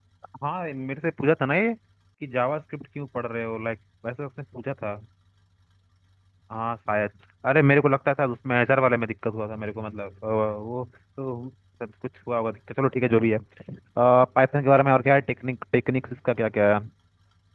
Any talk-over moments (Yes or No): No